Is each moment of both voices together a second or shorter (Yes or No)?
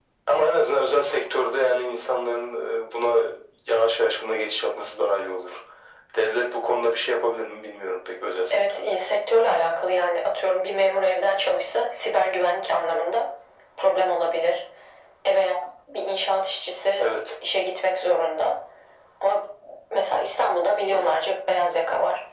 Yes